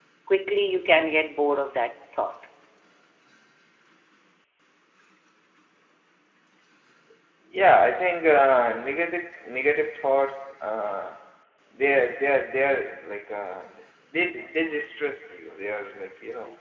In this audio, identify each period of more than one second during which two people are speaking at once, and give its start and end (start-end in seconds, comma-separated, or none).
none